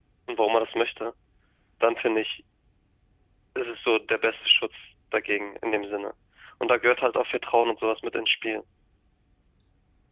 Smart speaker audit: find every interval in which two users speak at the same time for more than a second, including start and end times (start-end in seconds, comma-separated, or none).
none